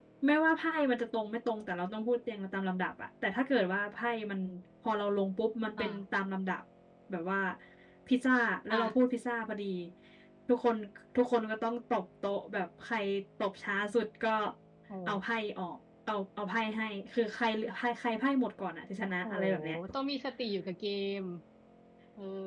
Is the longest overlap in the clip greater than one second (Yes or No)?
No